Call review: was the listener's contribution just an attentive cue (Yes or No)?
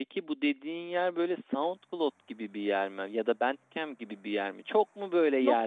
Yes